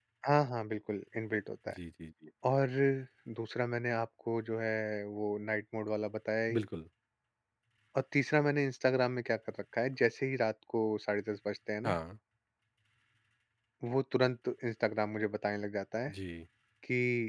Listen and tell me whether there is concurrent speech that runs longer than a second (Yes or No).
No